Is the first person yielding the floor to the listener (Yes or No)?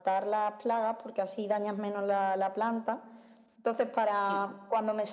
No